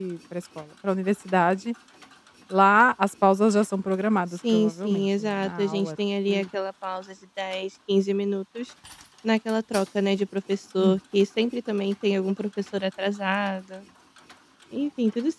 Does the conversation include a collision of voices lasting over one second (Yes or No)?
Yes